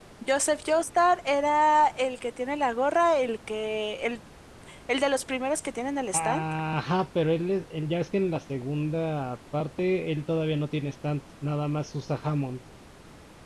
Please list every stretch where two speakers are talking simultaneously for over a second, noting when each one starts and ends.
none

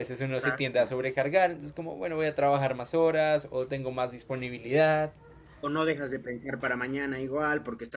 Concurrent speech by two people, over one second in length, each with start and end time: none

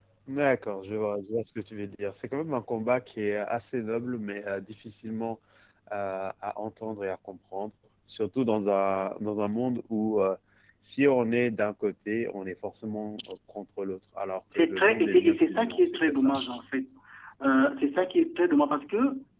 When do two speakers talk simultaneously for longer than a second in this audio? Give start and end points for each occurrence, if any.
14.6-16.3

